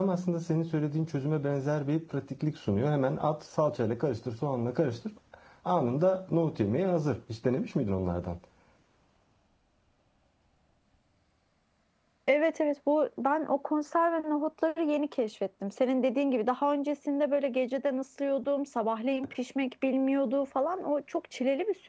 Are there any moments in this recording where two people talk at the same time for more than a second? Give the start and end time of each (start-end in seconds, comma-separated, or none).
none